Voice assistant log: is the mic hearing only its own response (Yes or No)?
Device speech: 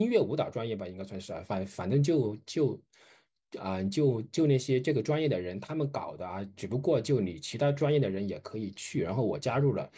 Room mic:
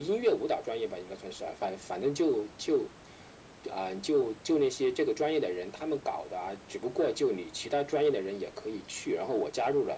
Yes